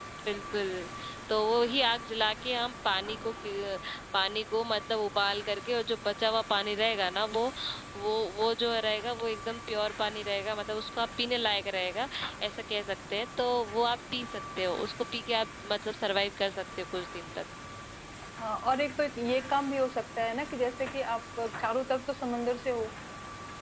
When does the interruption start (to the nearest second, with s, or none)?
none